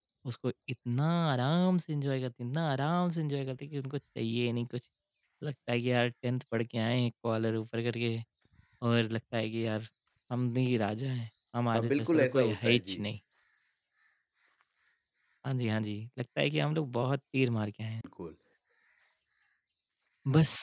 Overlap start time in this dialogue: 12 s

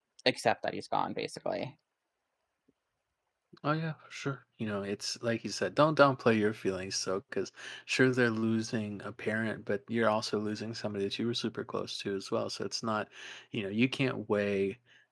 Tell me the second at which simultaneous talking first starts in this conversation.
none

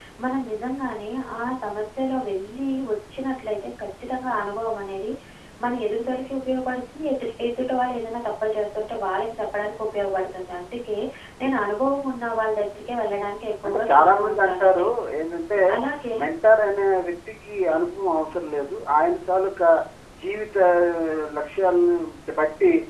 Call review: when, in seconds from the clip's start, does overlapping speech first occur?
14 s

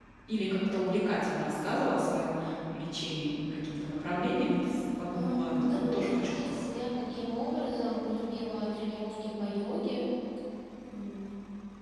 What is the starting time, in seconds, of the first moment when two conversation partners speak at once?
5 s

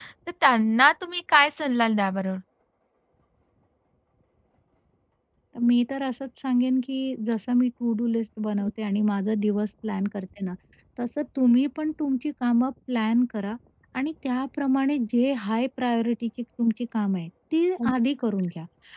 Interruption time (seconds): none

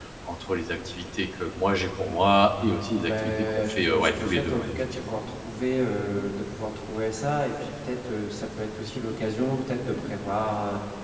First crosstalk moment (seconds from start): 3 s

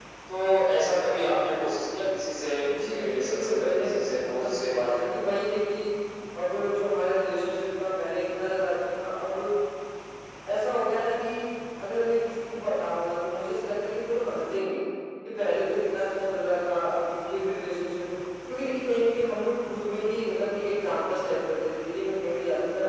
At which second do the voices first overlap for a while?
3 s

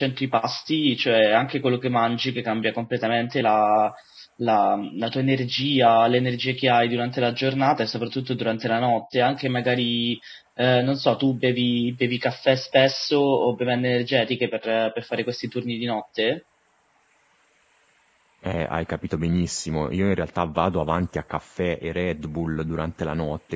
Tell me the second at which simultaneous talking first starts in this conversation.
none

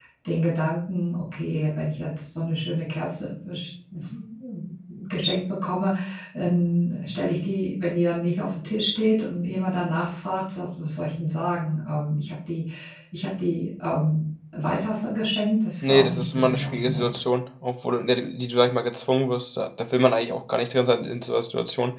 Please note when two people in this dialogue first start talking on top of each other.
16 s

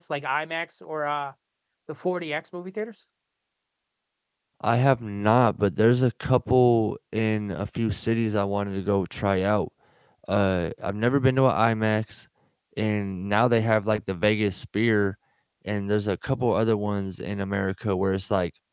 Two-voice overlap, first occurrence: none

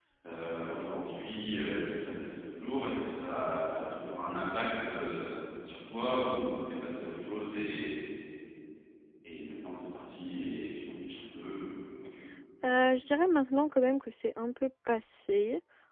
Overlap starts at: none

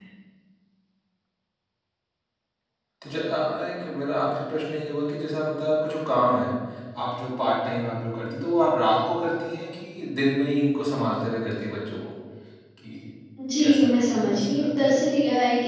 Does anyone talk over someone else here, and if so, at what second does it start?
14 s

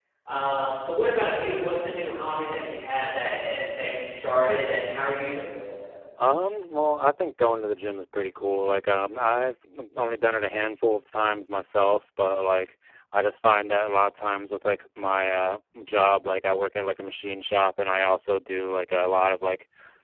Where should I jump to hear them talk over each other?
none

